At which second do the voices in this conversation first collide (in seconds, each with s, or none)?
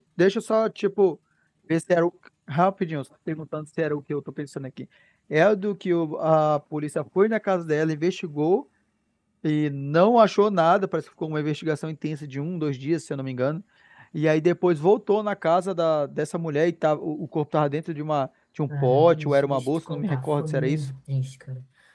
18.7 s